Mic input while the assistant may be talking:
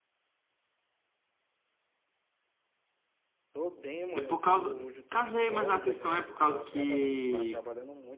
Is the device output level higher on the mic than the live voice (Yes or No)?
No